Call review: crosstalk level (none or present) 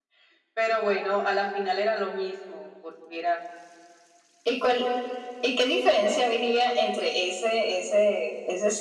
none